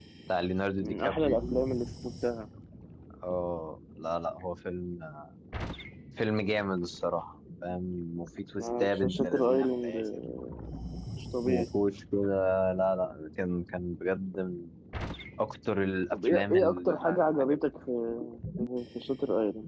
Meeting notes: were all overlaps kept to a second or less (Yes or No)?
No